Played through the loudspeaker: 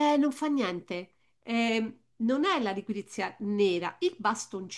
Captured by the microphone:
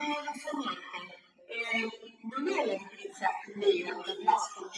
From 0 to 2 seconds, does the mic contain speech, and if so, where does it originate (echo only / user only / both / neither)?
echo only